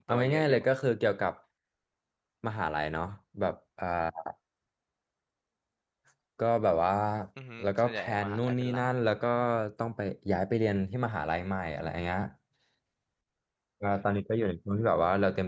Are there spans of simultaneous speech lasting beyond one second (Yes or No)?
Yes